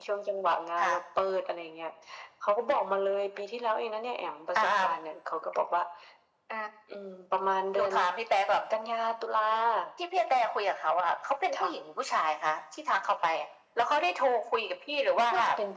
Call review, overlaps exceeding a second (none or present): none